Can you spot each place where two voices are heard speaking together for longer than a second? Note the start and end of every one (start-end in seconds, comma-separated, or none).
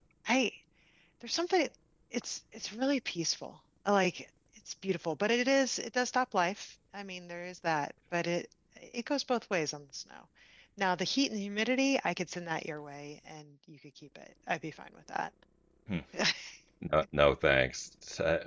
none